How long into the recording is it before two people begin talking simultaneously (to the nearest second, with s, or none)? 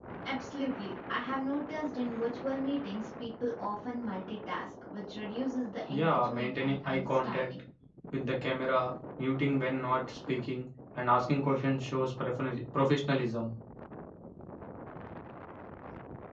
6 s